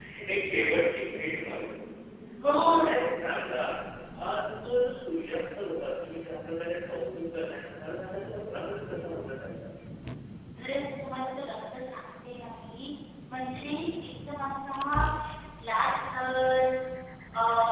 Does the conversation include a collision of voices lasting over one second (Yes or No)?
No